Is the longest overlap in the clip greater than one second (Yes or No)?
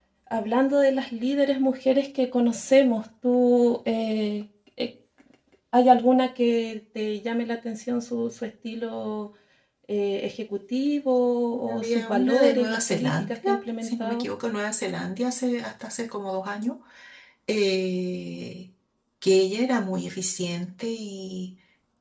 Yes